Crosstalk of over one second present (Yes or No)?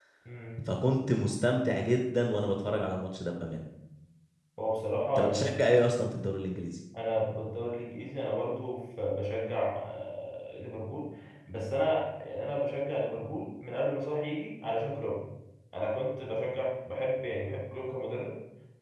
No